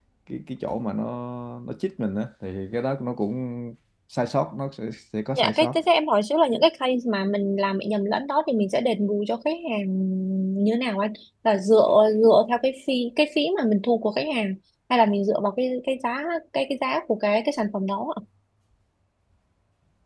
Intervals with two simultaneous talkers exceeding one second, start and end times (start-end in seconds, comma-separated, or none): none